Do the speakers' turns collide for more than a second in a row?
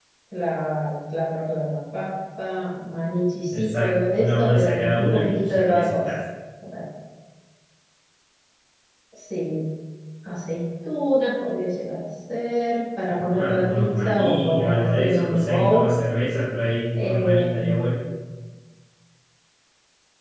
Yes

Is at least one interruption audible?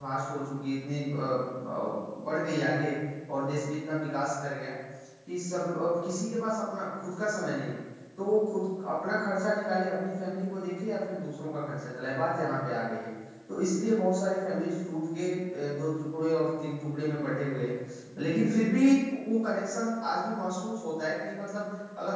No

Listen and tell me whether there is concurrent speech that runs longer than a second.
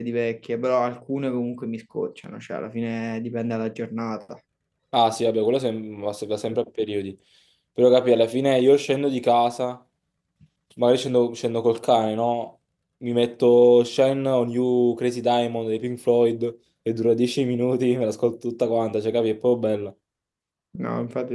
No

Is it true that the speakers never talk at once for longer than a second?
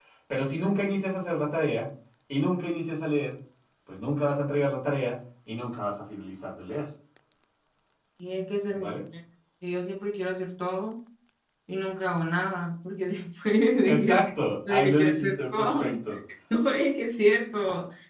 No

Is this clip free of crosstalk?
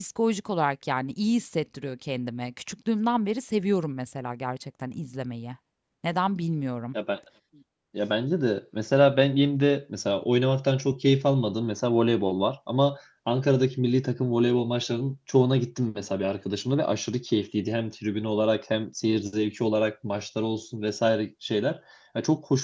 Yes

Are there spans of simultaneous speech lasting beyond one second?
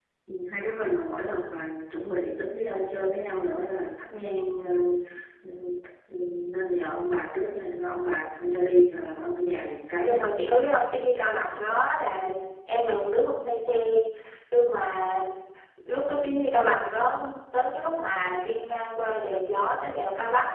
No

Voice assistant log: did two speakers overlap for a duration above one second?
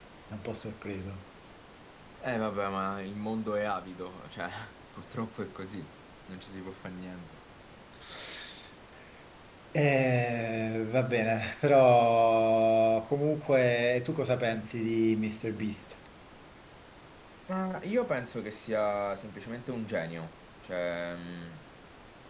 No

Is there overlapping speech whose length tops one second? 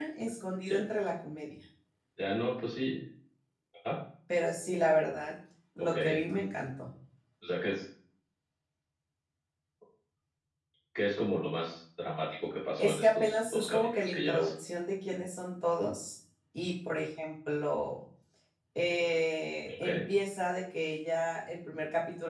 Yes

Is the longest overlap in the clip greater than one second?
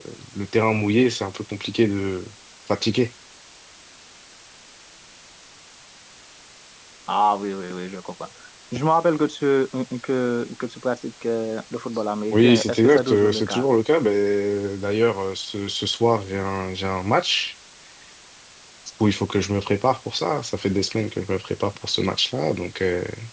Yes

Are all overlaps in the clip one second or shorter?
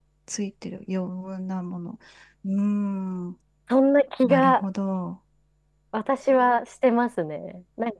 Yes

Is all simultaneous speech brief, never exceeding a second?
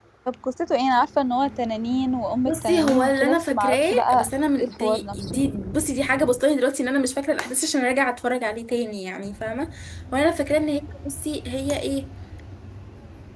No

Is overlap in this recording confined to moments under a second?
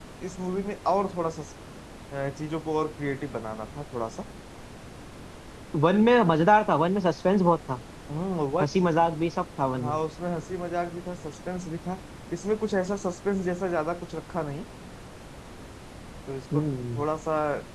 Yes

